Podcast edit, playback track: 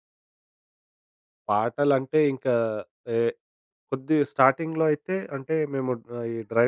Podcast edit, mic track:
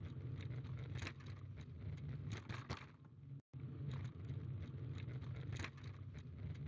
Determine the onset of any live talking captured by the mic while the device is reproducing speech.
none

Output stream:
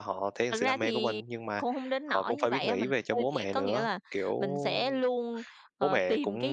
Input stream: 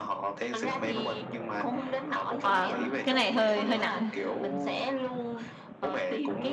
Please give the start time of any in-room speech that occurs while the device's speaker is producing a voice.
2.4 s

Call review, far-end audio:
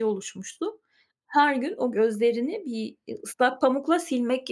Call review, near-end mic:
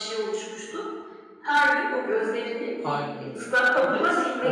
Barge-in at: 2.8 s

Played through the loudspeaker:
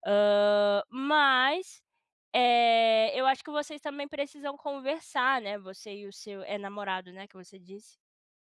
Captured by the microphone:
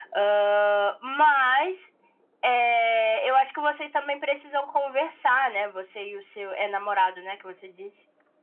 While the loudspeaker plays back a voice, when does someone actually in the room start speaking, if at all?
none

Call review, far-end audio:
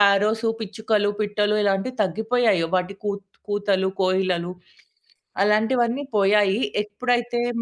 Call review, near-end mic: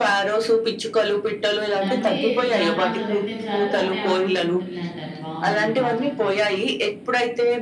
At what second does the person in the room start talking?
1.8 s

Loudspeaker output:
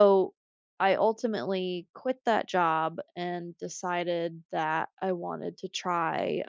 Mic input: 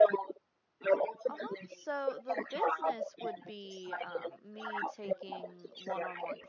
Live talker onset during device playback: 1.3 s

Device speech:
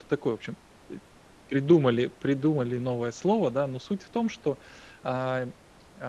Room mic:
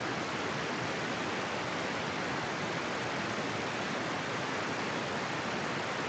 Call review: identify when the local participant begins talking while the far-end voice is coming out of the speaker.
none

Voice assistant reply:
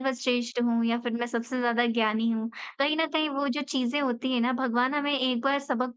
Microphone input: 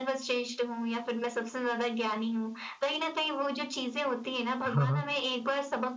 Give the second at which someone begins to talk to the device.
4.7 s

